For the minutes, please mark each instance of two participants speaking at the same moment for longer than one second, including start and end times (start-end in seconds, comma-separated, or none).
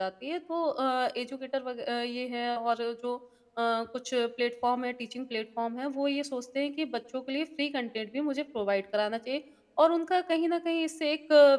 none